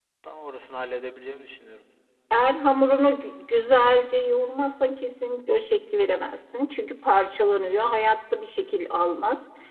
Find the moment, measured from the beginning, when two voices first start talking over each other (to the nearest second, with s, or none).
none